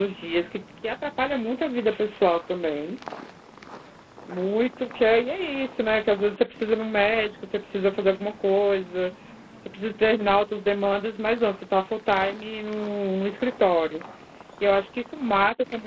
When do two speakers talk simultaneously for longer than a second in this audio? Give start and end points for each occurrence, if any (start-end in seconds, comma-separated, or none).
none